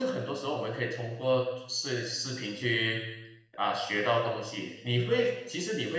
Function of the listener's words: listening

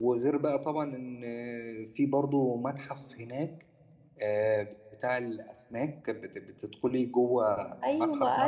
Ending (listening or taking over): taking over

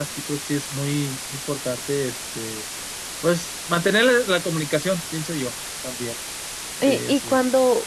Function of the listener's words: taking over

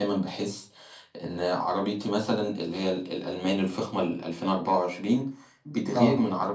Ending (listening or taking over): listening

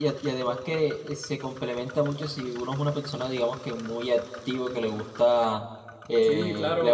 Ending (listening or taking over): listening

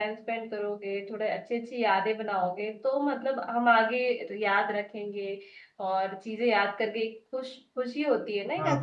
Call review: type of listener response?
taking over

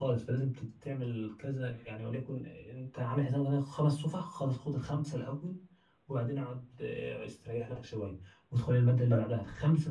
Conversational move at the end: listening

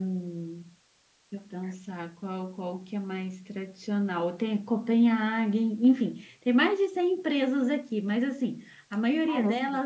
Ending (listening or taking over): listening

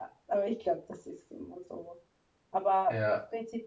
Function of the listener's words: listening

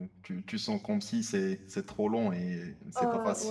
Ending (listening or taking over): listening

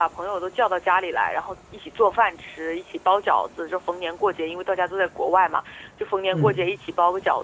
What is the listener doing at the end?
listening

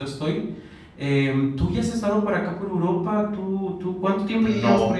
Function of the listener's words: taking over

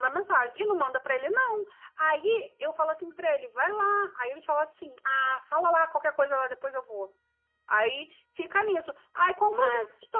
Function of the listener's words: listening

